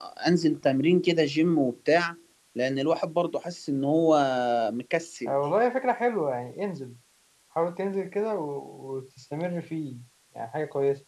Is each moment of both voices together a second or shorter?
Yes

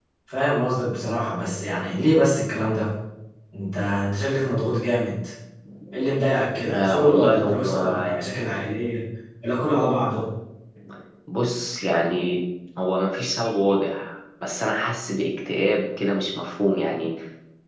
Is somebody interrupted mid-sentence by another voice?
Yes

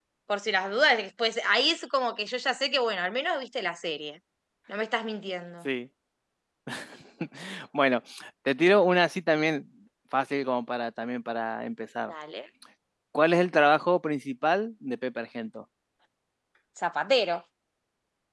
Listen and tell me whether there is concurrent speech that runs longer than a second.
No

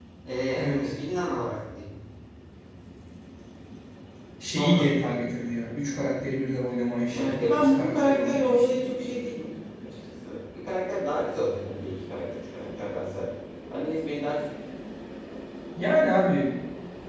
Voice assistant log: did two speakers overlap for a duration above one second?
Yes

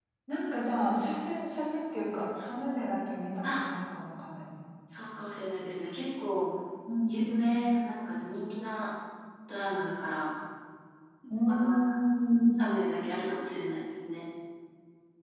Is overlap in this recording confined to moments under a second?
Yes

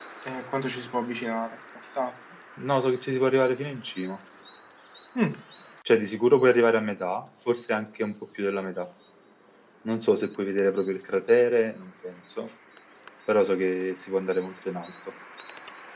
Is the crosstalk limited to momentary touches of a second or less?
Yes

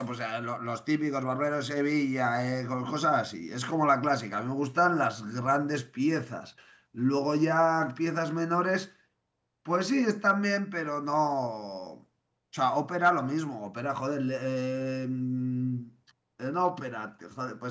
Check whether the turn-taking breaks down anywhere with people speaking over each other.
No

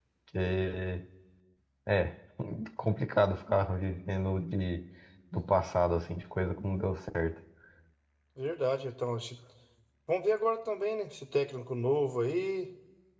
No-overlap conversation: Yes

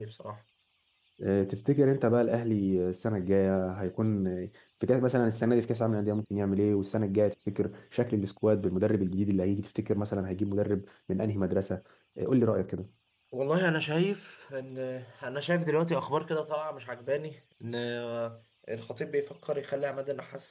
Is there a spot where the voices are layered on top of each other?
No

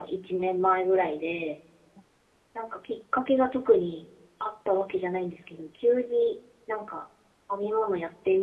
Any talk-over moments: No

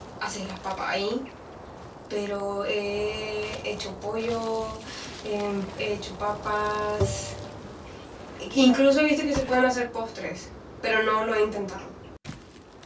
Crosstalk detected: No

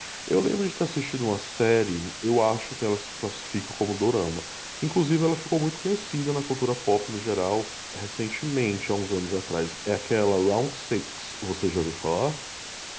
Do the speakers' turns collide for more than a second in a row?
No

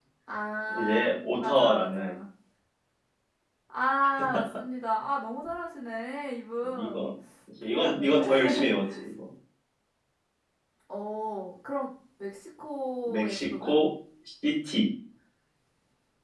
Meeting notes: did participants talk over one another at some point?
Yes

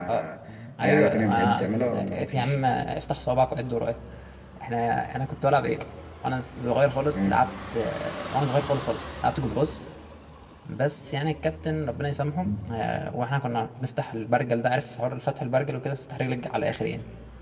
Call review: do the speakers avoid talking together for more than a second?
No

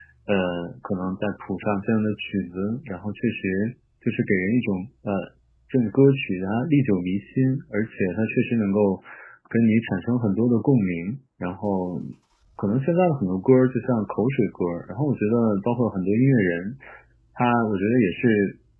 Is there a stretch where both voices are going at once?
No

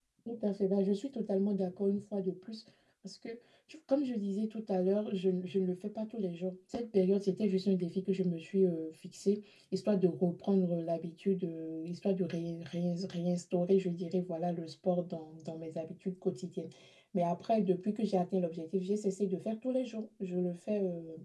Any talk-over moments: No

